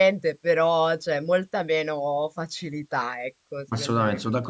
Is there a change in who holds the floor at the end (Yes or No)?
Yes